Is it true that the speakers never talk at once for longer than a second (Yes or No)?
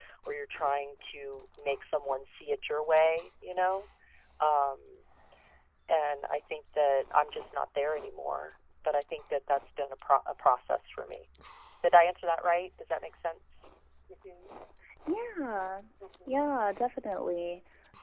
Yes